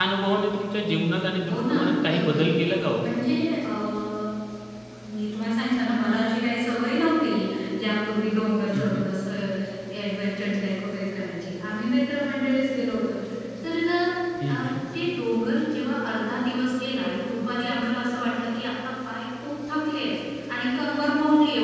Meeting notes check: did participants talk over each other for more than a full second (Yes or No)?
No